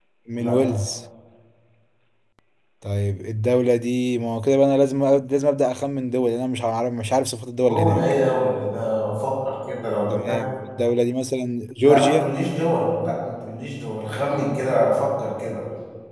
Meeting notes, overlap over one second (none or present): none